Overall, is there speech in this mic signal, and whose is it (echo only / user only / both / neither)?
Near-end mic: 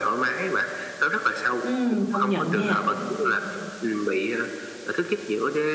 both